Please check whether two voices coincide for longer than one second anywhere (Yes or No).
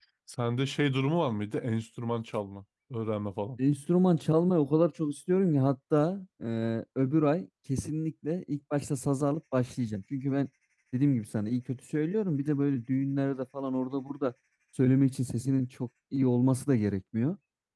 No